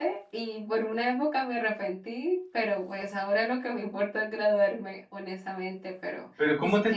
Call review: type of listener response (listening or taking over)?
taking over